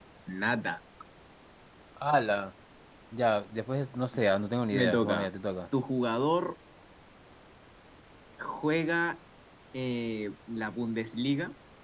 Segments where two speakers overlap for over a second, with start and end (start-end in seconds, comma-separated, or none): none